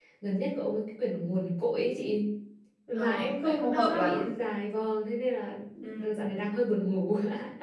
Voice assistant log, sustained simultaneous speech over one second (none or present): present